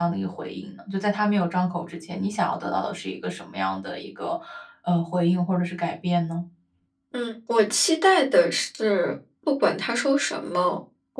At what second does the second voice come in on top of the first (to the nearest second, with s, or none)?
none